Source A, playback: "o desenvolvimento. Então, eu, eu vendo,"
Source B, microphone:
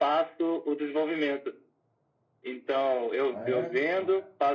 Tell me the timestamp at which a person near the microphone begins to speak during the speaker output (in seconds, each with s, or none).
3.3 s